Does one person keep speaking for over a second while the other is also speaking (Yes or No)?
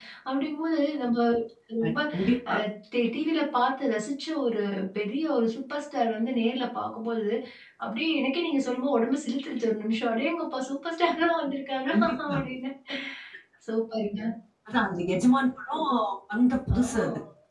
No